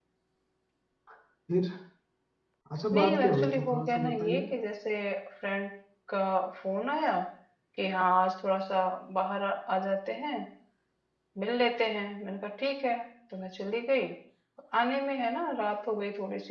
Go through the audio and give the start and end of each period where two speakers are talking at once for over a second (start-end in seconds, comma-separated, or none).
2.9-4.4